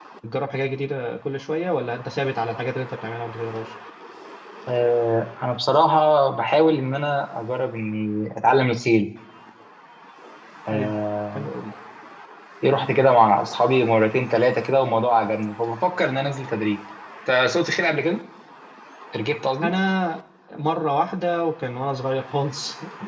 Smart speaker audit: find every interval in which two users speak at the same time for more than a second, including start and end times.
none

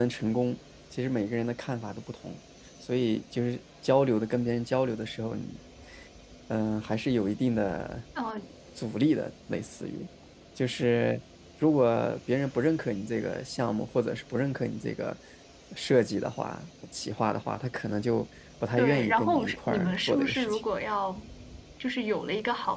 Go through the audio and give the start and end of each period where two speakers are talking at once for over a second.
18.8-20.6

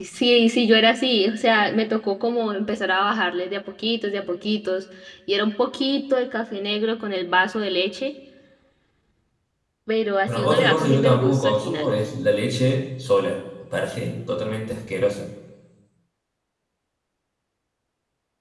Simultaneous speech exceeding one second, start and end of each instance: 10.3-11.9

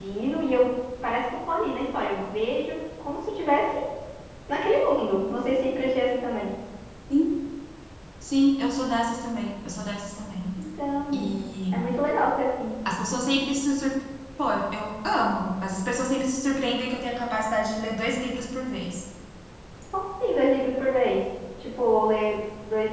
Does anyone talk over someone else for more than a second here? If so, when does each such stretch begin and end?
none

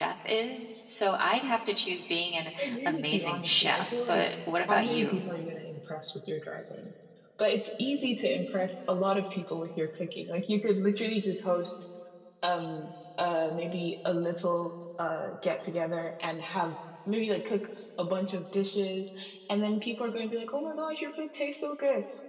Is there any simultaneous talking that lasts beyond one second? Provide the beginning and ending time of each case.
2.6-4.2

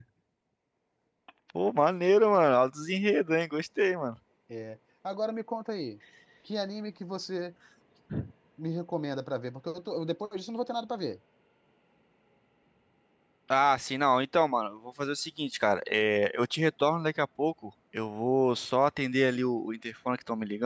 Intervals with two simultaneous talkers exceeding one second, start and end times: none

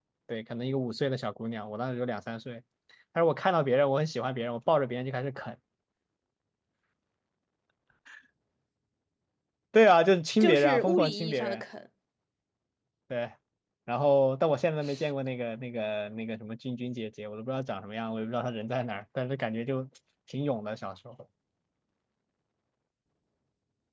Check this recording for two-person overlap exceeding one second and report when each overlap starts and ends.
10.4-11.6

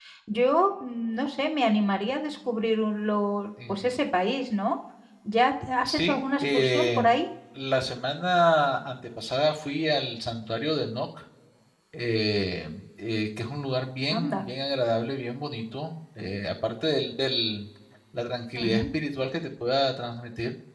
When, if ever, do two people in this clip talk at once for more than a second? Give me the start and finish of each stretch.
5.8-7.1

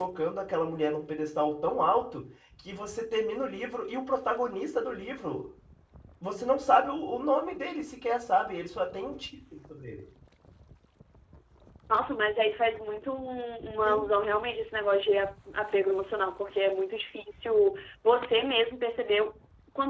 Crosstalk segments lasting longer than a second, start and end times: none

